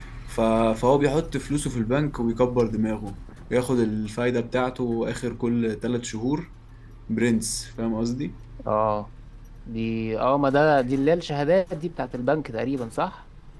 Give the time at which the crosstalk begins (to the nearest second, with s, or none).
none